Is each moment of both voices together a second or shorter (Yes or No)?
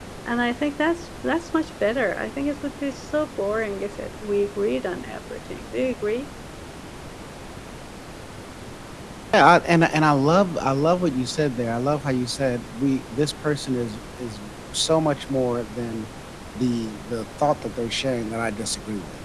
Yes